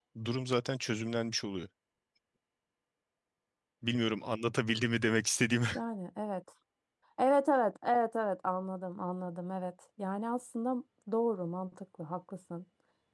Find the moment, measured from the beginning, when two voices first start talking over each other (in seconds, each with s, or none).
none